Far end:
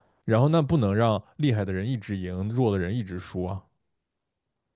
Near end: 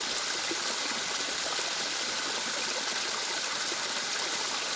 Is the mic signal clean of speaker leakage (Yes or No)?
Yes